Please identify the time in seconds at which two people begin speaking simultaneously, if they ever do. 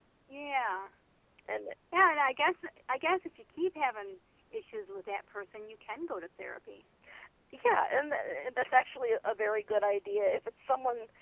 none

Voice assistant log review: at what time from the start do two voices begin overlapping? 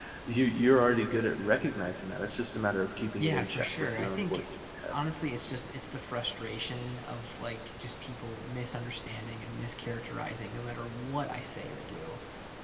3.2 s

